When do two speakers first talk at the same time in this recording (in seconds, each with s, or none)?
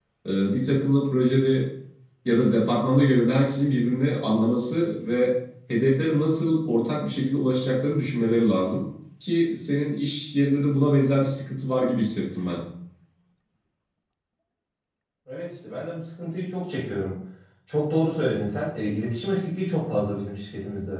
none